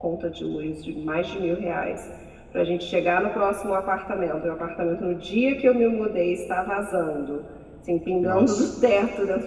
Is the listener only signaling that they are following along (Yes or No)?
Yes